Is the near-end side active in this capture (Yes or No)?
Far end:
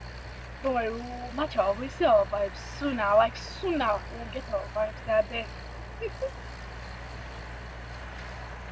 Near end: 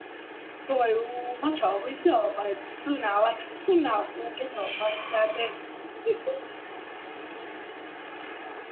Yes